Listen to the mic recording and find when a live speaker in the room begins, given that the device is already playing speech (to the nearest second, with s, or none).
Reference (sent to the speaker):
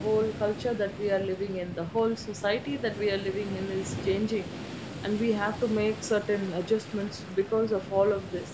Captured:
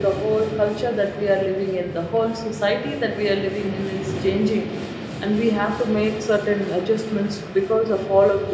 none